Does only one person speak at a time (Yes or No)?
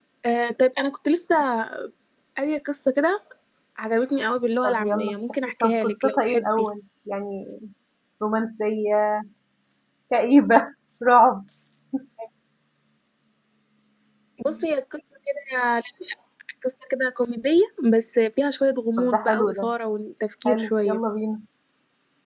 No